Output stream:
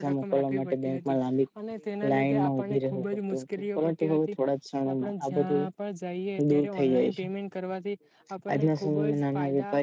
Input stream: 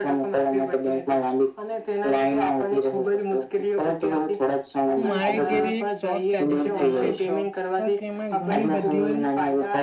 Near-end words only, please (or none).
હું મારા ઘેરે એક શોપ ચાલે છે ગ્રોસરીઝ તો તો તેમાં ઘણી બધી